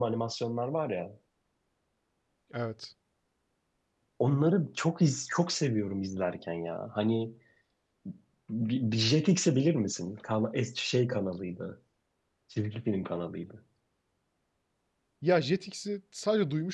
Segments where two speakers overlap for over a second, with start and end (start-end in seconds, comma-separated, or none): none